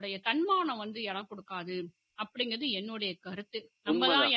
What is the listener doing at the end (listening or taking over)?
taking over